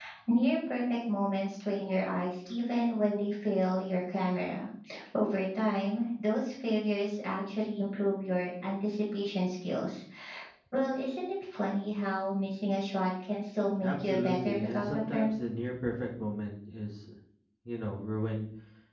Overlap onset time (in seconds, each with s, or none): 13.8 s